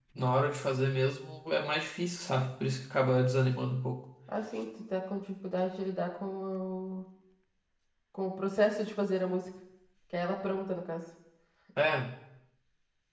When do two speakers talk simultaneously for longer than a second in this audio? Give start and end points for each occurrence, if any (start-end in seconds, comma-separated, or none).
none